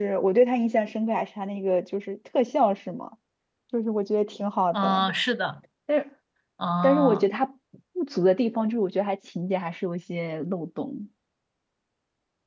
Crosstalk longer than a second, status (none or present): none